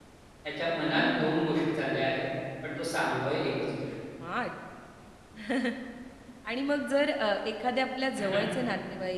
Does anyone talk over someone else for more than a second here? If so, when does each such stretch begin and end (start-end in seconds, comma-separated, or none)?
none